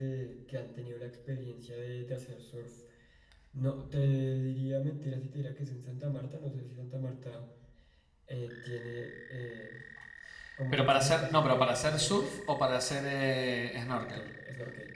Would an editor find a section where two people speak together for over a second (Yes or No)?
Yes